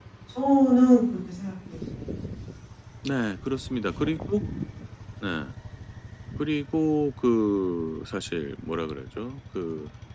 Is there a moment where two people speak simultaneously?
No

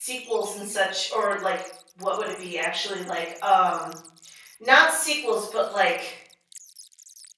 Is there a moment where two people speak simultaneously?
No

